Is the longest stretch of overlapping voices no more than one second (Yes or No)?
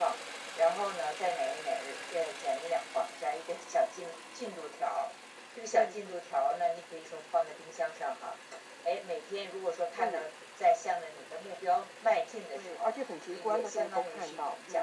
No